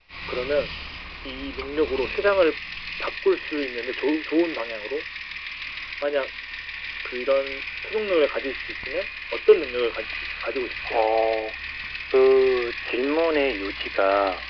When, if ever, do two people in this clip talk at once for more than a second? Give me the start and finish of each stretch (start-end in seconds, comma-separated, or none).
none